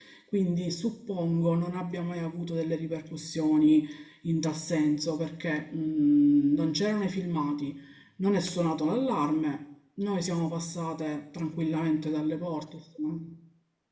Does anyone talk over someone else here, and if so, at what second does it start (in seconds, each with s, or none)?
none